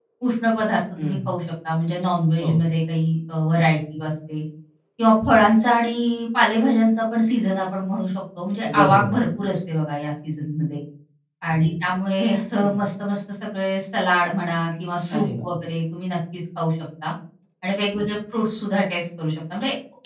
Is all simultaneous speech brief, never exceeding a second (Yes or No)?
Yes